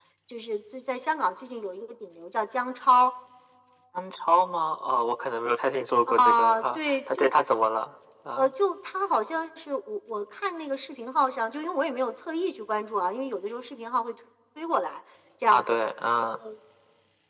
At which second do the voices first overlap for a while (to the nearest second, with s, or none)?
6 s